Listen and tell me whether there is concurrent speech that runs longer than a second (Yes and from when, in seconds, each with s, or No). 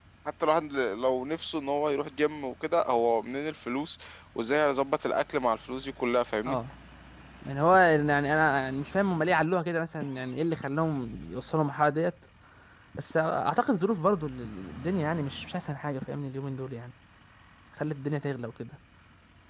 No